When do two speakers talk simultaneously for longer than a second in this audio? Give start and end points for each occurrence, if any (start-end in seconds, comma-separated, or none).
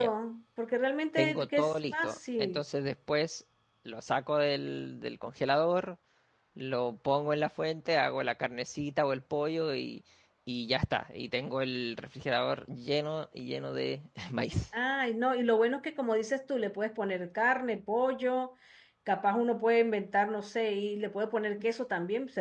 1.2-2.6